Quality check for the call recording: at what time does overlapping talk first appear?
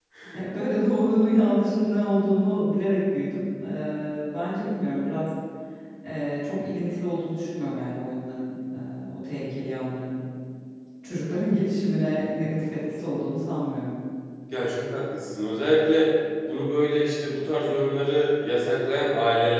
none

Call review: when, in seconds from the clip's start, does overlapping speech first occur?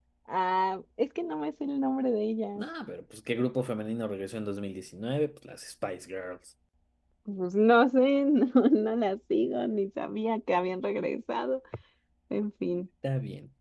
none

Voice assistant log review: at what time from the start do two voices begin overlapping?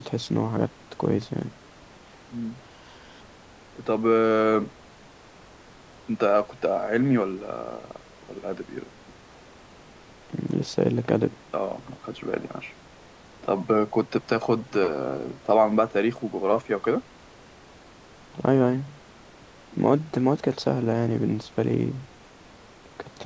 none

